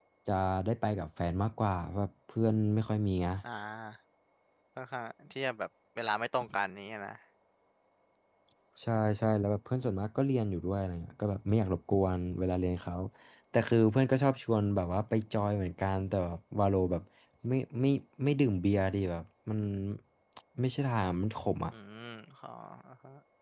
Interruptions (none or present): none